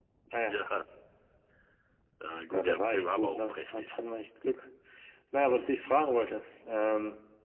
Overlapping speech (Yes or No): Yes